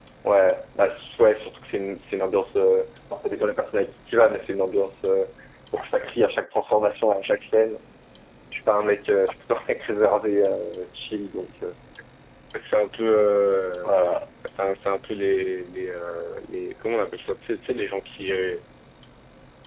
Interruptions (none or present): none